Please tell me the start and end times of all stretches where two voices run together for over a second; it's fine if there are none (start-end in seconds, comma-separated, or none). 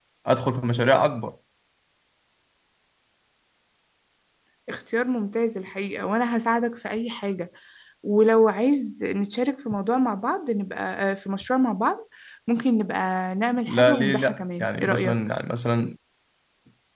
13.7-15.2